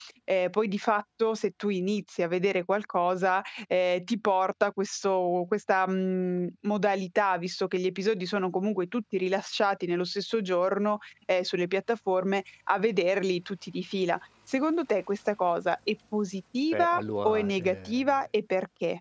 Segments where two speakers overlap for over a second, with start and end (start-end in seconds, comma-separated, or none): 16.7-18.2